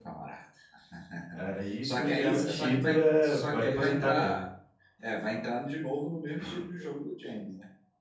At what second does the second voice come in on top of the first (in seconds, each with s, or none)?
1.8 s